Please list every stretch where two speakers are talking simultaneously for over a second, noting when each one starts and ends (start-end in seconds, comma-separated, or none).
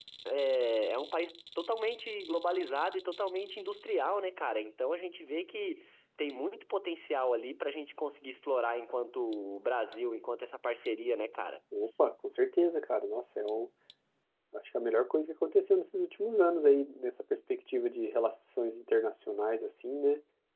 none